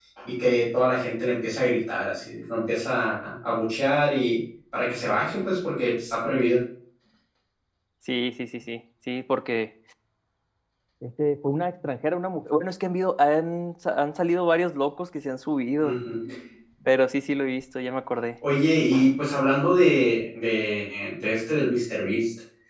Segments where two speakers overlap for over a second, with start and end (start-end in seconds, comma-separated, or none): none